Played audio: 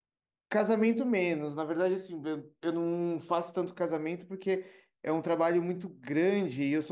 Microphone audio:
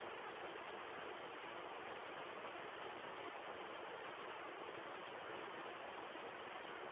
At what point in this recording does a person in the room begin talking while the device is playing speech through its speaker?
none

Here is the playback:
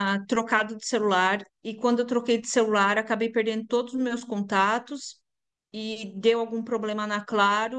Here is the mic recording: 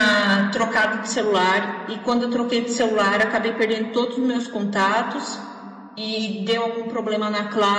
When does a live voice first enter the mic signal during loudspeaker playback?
none

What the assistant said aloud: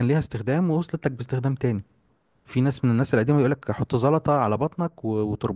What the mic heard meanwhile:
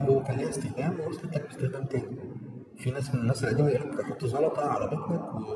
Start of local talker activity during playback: none

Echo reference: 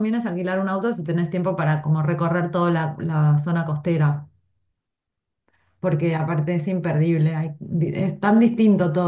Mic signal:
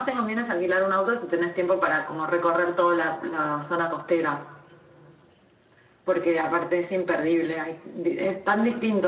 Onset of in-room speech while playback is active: none

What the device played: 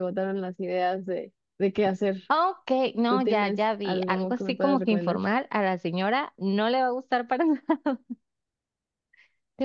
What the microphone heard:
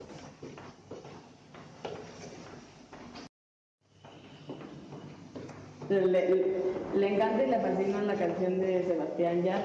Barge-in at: 5.9 s

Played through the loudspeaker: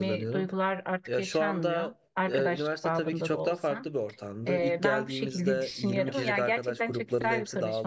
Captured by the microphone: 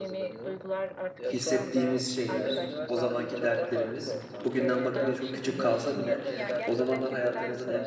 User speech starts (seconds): 1.2 s

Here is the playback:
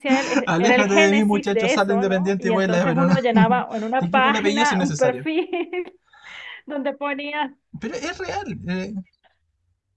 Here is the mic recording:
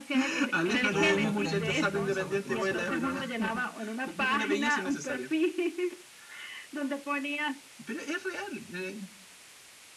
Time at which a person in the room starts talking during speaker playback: 0.9 s

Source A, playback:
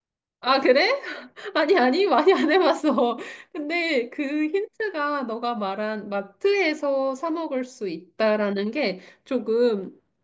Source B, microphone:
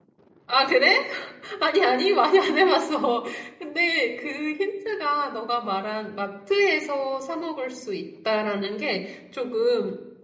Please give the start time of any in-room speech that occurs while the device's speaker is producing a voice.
none

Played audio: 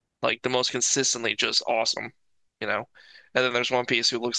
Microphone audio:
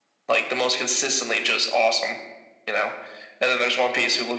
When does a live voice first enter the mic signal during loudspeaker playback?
none

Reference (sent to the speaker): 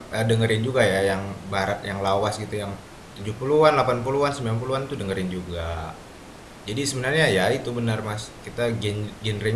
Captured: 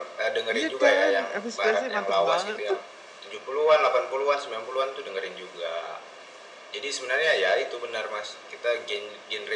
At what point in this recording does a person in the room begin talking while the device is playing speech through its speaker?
0.5 s

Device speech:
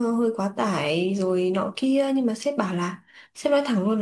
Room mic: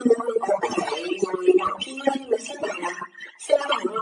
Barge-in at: none

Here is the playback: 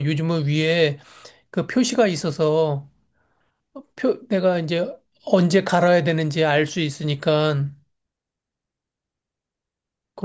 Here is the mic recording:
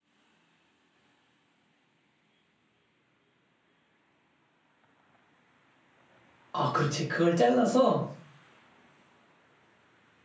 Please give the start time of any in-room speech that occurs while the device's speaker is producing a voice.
6.5 s

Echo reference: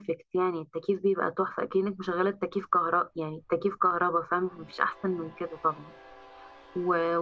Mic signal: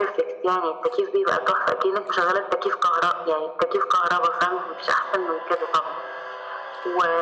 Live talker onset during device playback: none

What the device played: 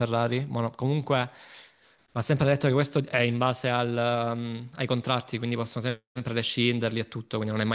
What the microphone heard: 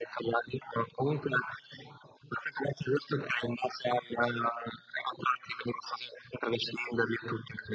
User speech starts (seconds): none

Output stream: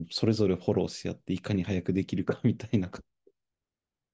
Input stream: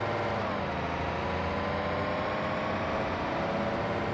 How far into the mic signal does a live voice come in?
none

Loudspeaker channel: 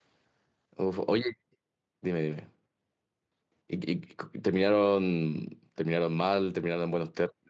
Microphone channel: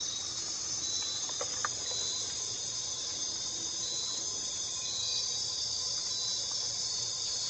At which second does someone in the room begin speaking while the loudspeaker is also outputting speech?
none

